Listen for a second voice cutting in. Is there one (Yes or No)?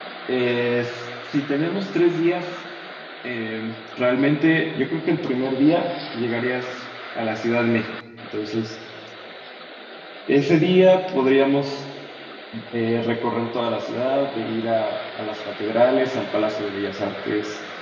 No